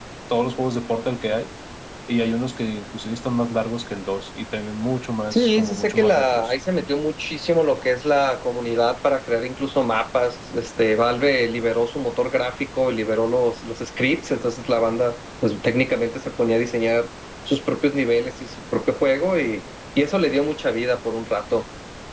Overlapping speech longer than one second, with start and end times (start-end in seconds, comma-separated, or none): 5.3-6.5